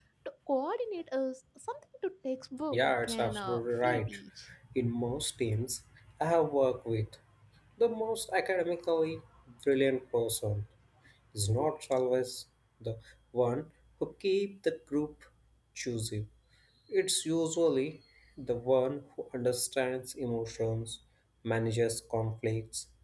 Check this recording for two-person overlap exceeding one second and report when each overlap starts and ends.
2.7-4.1

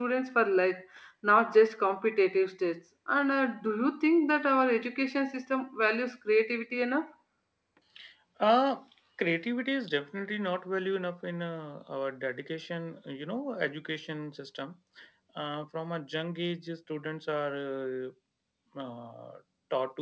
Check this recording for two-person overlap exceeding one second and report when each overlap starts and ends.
none

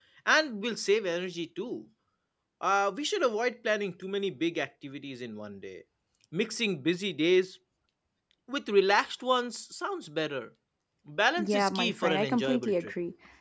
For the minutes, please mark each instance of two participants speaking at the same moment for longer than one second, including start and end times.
11.4-12.9

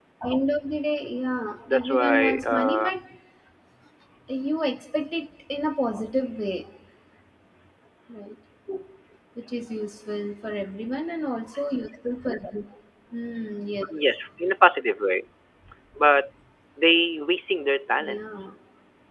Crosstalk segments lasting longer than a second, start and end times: 1.7-2.9

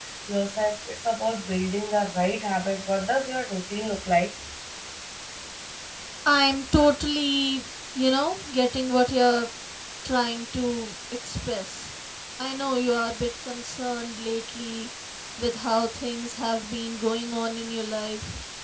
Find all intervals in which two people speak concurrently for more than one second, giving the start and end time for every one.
none

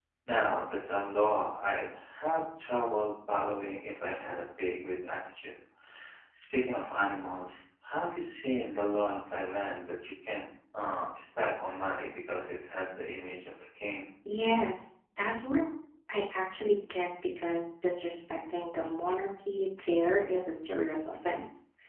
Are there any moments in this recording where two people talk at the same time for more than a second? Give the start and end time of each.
none

